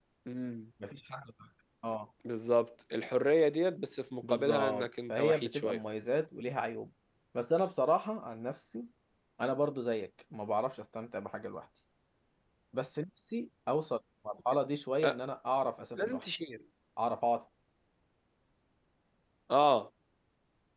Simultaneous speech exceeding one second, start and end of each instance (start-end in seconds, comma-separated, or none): 4.3-5.8